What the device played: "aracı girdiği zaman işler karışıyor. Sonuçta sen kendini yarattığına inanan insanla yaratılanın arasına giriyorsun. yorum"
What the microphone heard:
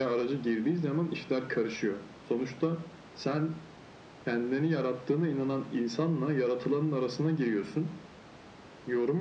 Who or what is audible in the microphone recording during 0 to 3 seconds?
echo only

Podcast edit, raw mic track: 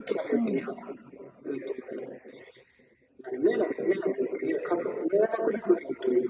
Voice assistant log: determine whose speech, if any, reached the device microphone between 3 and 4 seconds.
echo only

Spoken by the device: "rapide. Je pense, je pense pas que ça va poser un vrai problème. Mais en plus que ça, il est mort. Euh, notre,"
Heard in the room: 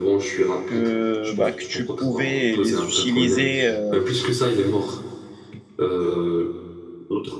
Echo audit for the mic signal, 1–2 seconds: both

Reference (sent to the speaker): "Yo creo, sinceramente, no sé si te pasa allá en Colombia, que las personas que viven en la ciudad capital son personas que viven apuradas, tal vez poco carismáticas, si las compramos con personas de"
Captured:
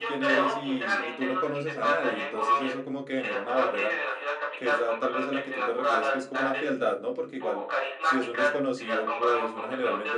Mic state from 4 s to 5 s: both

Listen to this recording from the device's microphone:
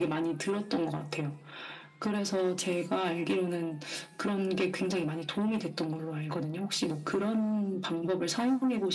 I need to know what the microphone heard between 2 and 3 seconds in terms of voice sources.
echo only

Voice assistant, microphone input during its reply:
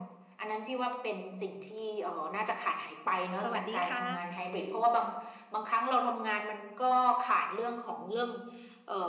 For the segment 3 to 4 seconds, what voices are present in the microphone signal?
both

